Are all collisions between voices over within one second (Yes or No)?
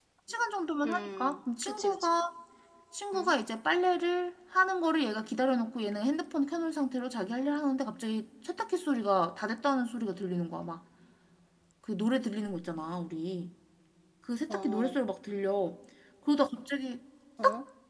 No